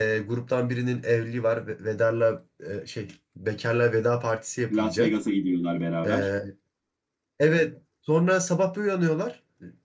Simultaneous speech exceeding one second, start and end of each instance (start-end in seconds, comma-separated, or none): none